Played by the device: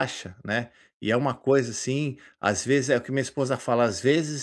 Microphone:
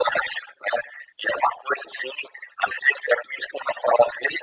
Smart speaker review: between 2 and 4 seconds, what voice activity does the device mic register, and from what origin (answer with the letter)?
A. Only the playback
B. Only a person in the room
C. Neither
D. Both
A